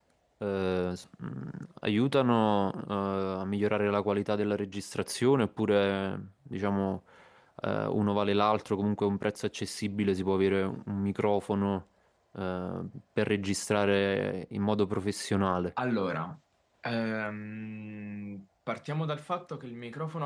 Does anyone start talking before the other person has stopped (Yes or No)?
No